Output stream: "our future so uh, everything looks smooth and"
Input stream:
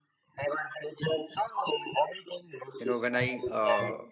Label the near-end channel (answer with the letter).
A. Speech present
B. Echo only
A